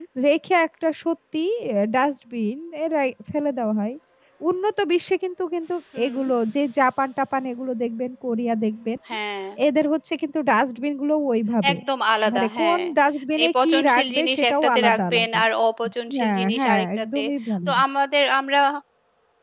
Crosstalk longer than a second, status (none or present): present